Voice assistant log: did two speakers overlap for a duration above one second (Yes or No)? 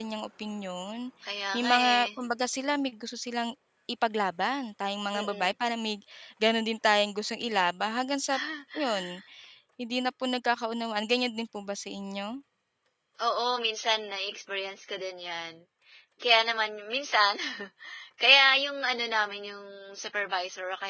No